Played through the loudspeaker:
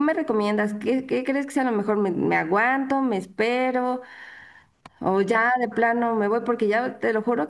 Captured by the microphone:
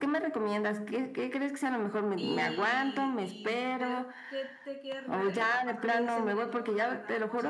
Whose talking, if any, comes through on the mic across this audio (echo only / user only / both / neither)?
both